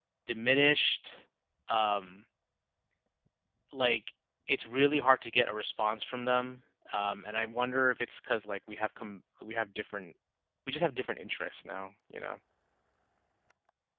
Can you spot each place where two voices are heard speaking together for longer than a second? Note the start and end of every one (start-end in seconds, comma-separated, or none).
none